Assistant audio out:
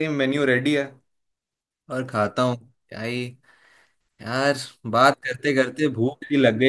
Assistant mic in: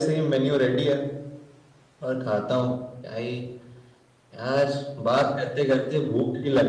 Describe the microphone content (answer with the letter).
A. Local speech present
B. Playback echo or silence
B